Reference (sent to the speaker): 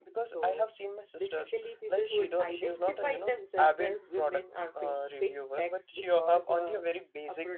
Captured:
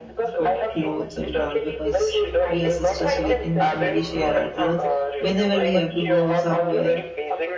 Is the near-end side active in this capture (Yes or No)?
Yes